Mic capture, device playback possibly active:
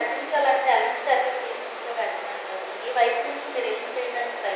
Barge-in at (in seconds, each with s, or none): none